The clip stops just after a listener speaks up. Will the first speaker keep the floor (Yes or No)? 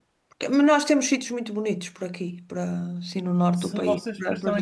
No